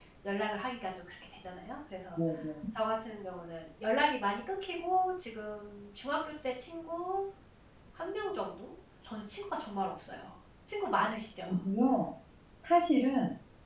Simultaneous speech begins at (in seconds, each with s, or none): none